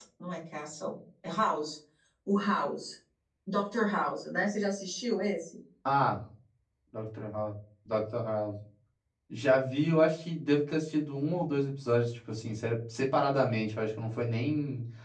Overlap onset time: none

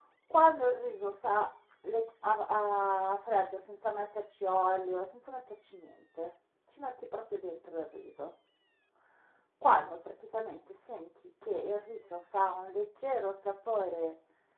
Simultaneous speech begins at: none

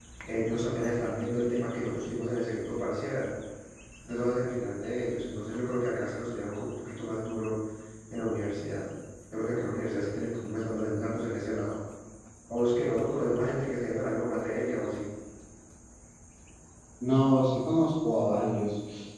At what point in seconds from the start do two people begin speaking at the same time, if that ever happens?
none

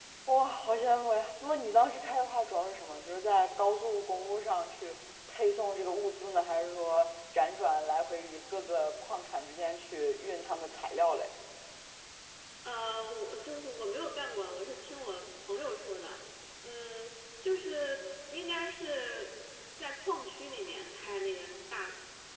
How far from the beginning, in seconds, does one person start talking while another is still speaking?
none

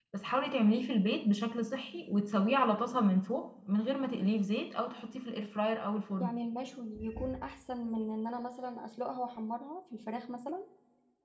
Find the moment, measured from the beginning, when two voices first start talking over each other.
none

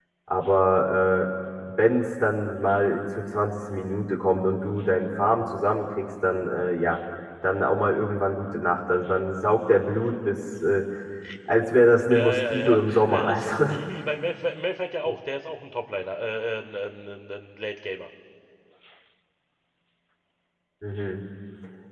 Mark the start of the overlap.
12.1 s

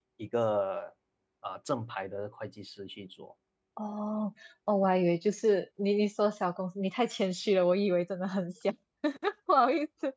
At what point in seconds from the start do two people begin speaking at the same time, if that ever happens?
none

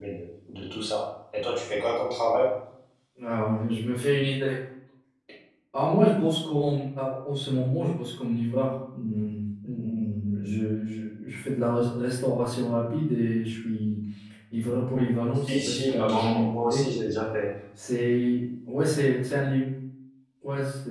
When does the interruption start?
15.5 s

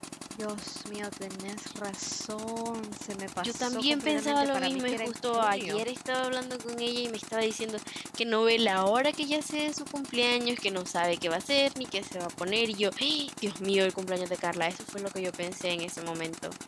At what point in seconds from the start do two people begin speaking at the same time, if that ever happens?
3.4 s

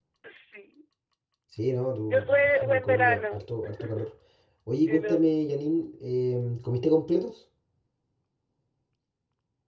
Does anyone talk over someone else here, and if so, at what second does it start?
2.1 s

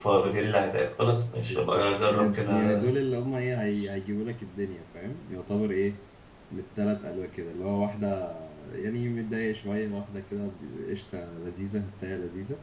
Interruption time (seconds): 1.4 s

